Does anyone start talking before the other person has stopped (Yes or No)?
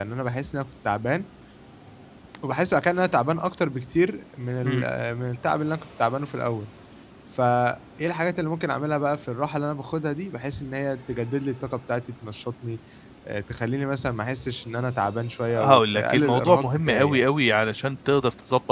Yes